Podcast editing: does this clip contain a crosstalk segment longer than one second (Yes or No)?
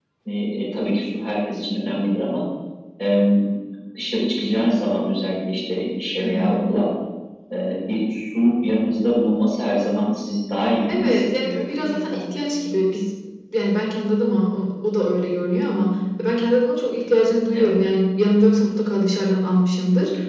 Yes